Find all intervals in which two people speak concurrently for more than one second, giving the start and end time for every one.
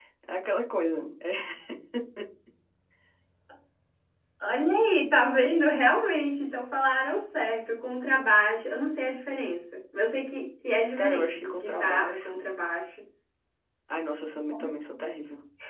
11.0-12.4

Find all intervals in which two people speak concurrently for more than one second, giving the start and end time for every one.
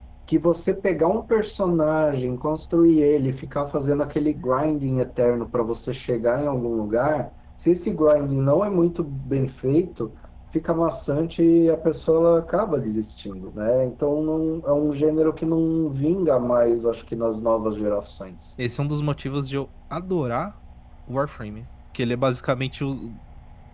none

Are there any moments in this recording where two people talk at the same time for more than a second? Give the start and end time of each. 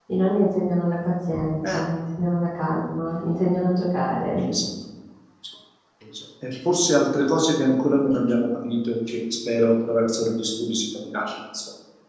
none

